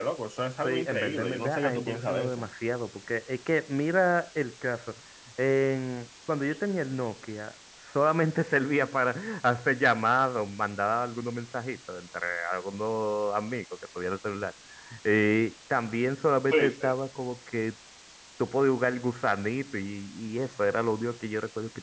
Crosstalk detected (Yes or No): Yes